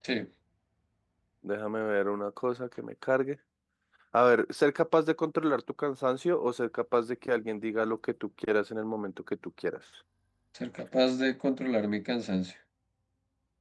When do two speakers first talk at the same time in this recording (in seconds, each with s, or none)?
none